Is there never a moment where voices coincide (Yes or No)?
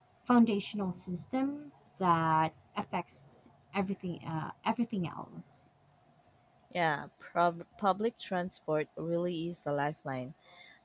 Yes